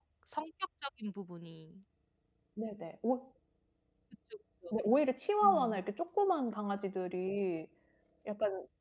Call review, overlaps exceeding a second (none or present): none